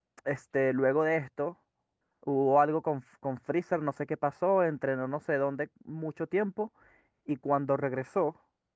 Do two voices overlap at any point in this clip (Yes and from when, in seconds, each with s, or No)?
No